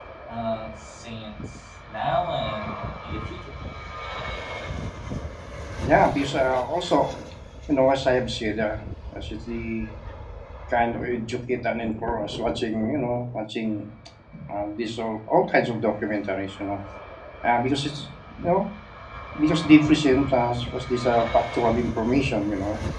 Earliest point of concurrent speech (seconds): none

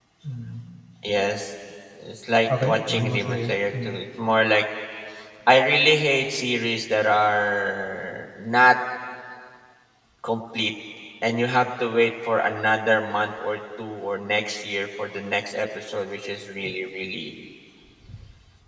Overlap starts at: 2.6 s

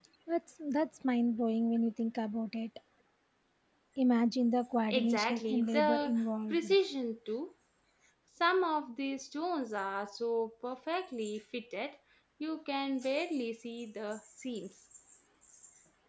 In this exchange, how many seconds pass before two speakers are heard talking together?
4.9 s

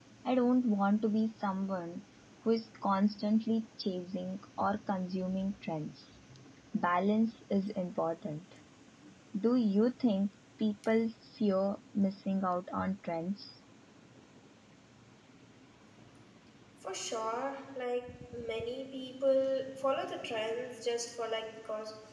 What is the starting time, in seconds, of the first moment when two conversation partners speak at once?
none

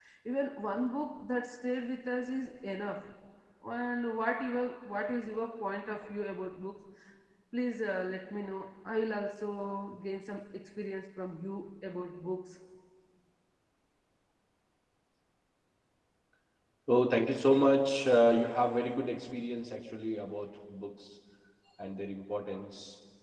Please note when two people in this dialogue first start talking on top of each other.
none

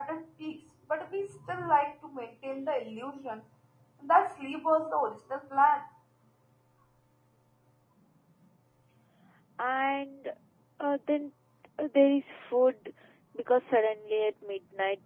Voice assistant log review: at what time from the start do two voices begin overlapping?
none

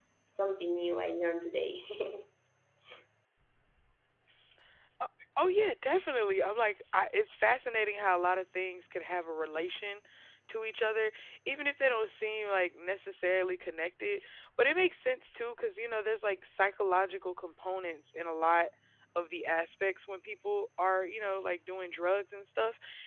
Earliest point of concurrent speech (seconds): none

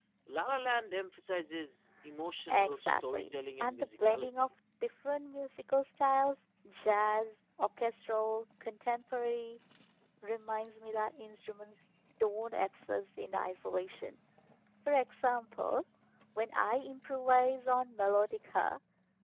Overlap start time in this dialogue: 2.5 s

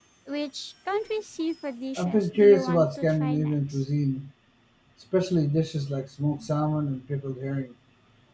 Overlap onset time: 2.0 s

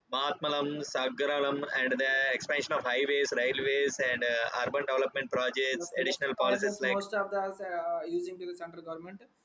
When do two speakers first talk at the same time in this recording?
5.7 s

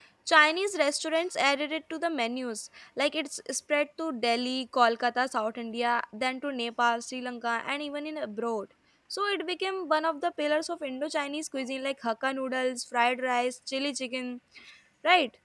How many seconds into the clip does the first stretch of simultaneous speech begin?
none

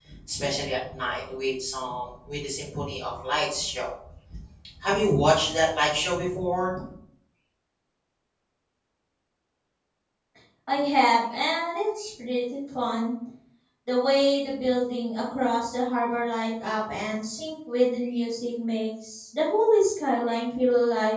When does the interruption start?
none

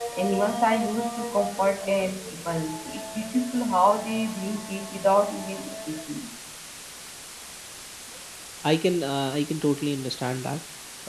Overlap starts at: none

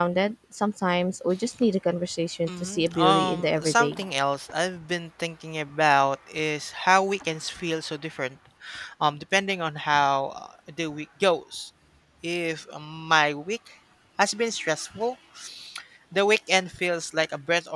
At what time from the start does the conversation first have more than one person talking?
2.5 s

